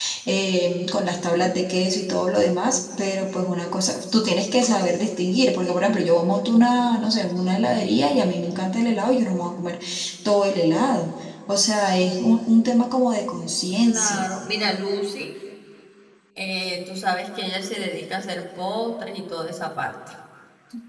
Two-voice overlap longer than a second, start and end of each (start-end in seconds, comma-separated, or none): none